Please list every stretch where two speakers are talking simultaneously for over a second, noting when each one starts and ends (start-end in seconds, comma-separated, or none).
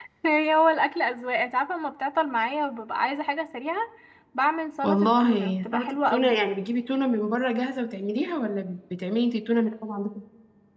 4.8-6.4